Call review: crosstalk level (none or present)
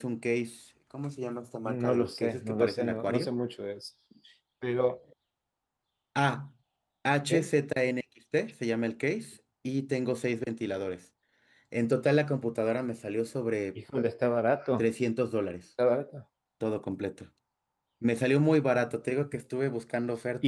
present